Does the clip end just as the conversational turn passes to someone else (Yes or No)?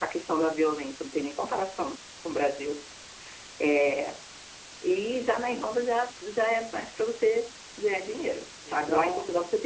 No